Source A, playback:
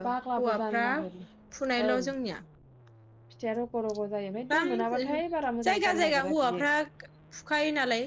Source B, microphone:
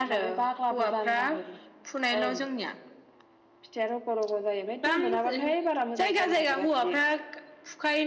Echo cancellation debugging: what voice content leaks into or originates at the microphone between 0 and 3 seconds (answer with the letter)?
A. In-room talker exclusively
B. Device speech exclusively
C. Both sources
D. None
B